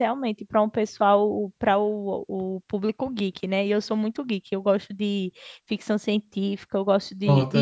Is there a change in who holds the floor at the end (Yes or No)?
No